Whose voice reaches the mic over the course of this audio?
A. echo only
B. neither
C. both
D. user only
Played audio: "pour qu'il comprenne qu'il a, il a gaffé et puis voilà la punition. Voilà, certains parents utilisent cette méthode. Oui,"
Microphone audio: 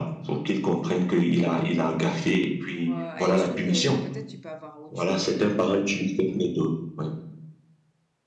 C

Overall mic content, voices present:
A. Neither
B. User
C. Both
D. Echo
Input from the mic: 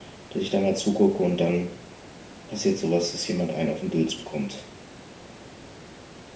B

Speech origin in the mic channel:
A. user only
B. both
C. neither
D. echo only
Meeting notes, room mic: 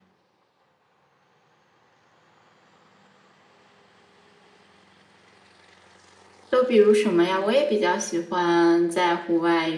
A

